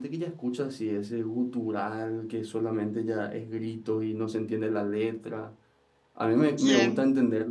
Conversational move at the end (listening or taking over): listening